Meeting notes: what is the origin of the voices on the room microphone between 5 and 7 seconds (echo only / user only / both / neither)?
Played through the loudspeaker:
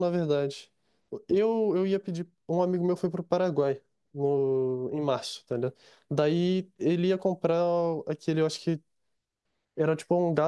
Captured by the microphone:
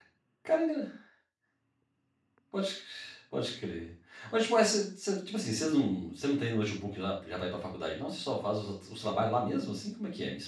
user only